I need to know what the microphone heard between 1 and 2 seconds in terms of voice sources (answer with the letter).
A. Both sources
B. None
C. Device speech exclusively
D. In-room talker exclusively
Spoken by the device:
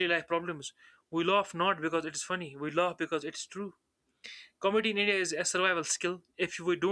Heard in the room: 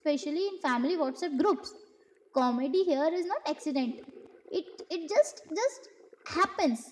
D